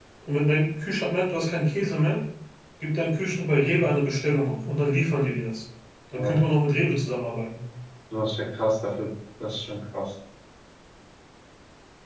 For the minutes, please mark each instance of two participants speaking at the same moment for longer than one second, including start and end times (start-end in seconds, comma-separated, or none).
none